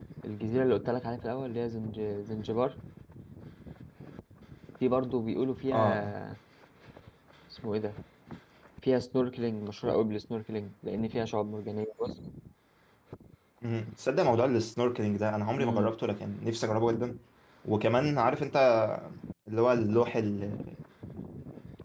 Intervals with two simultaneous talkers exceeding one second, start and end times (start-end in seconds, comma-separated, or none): none